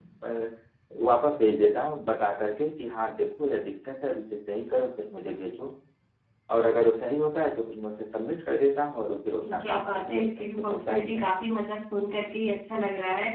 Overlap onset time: 9.4 s

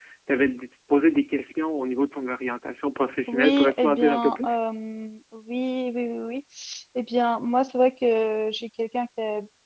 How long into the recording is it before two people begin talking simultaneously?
3.3 s

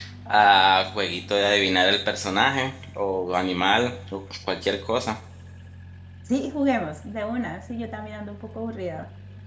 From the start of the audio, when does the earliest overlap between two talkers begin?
none

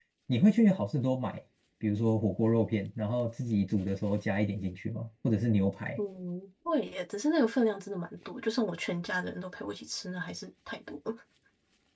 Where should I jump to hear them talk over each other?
none

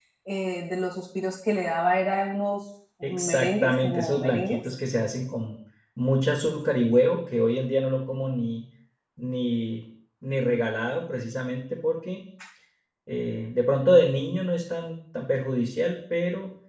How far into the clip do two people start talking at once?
3.0 s

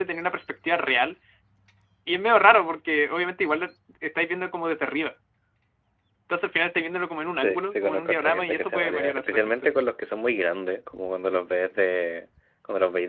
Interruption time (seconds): 7.4 s

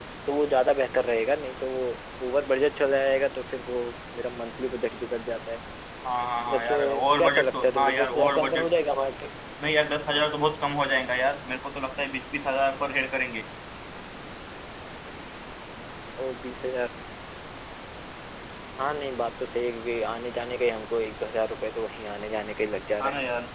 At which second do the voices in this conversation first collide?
6.5 s

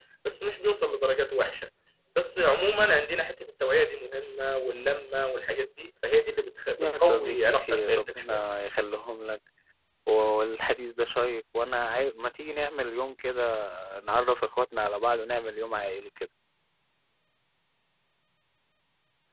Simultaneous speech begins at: 6.8 s

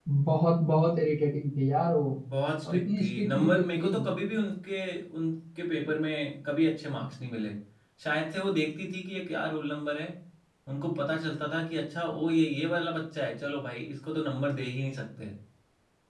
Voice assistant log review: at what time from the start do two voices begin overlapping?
2.6 s

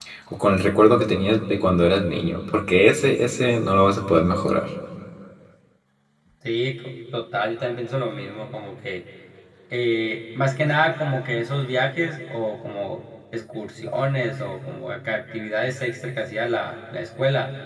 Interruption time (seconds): none

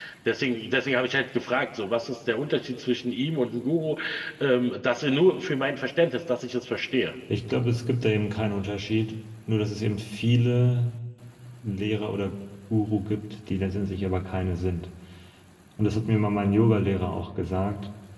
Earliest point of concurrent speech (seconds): none

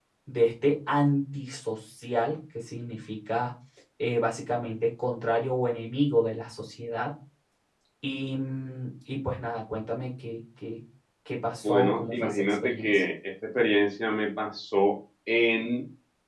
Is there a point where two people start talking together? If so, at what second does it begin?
11.6 s

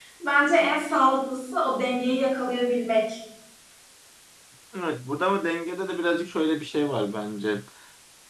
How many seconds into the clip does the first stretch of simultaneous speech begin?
none

